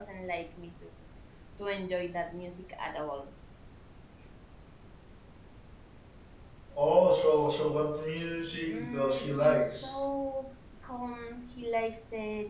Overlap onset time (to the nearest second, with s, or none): 9 s